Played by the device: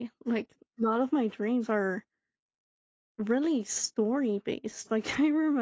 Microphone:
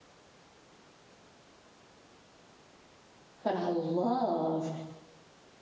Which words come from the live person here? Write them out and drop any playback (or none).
but I love